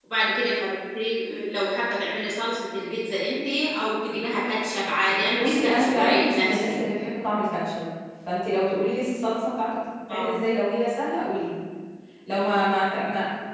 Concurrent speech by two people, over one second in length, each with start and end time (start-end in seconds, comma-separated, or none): 5.3-6.8